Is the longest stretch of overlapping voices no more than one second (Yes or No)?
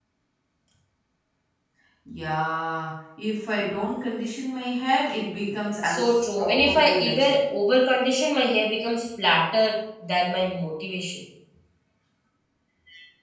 No